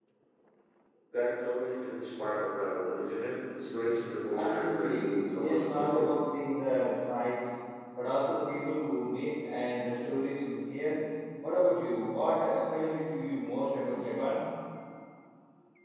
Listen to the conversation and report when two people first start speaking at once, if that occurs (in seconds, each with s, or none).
4.3 s